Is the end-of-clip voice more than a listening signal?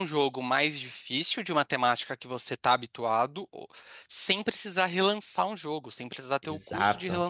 No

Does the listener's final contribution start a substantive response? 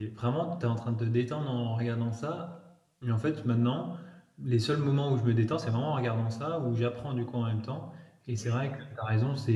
No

